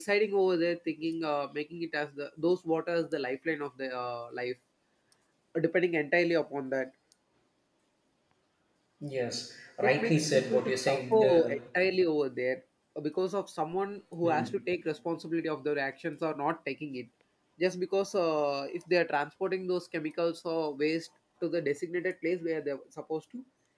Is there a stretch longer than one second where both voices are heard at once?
Yes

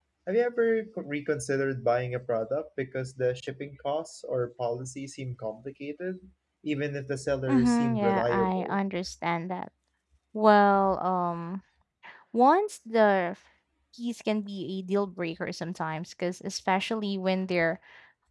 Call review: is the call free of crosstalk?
No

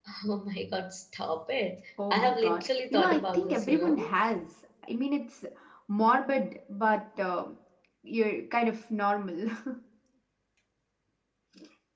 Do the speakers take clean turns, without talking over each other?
No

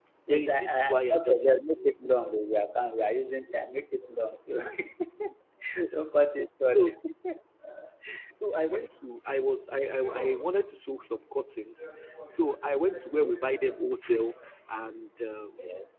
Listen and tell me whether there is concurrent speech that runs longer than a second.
Yes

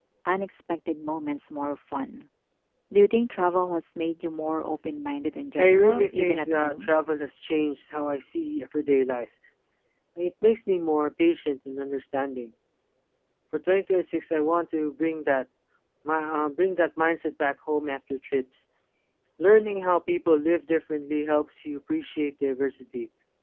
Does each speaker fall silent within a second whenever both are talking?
No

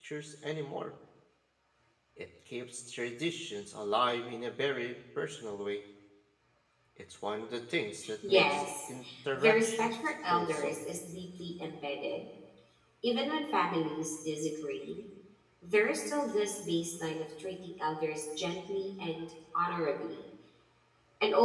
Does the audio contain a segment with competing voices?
Yes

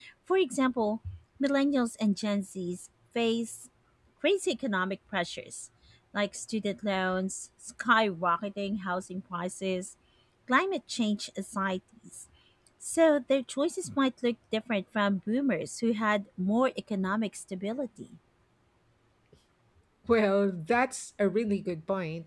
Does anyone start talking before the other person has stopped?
No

